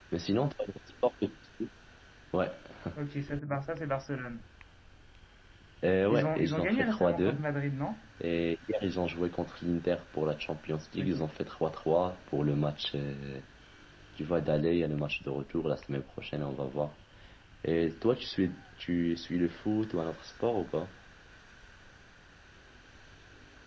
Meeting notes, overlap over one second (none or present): present